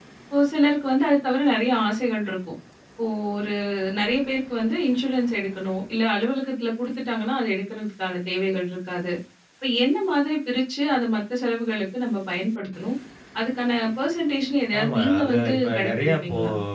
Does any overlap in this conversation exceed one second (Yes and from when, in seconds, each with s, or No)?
Yes, from 14.7 s